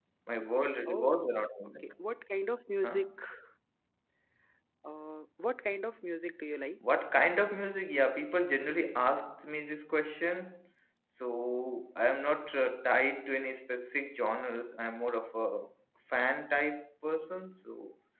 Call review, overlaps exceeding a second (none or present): none